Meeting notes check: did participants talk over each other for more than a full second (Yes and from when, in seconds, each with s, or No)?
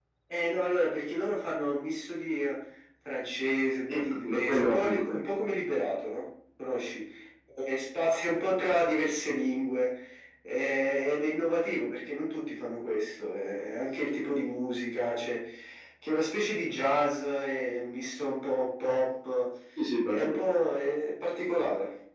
Yes, from 3.9 s